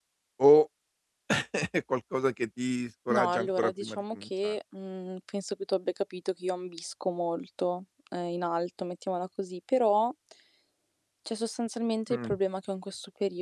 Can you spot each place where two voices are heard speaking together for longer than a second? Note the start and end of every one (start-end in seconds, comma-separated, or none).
3.1-4.5